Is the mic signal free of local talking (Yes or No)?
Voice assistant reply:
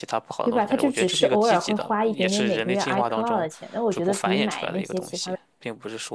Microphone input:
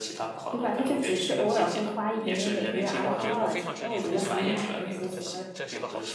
No